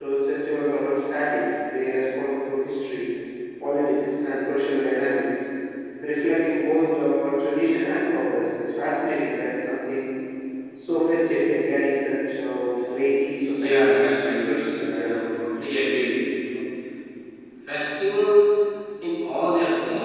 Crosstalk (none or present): present